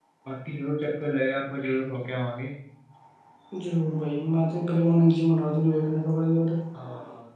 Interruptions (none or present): none